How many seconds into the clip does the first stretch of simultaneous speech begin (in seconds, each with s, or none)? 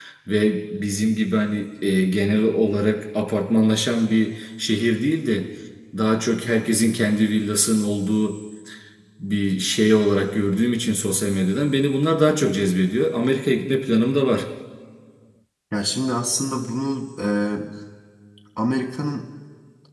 none